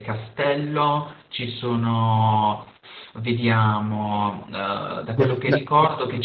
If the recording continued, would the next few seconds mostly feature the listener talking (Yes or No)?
No